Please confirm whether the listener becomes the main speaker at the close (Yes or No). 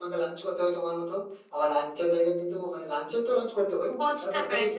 Yes